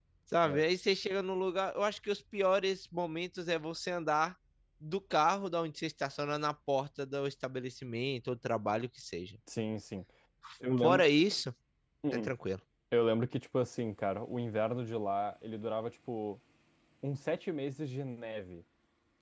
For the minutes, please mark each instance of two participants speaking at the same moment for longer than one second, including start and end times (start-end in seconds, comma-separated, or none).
none